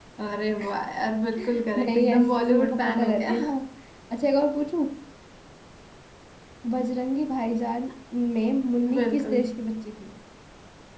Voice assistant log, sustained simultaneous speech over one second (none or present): present